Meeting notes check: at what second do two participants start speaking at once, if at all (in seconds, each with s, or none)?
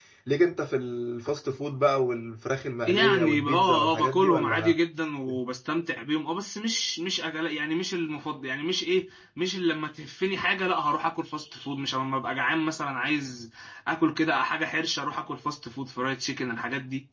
2.9 s